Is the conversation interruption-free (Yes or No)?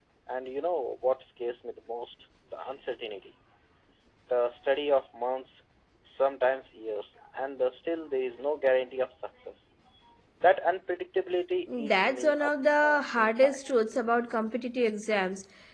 No